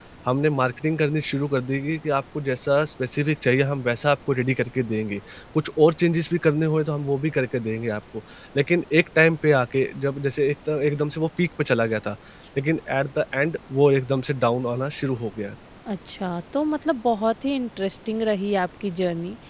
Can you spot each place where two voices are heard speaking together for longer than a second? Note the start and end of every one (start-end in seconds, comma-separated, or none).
none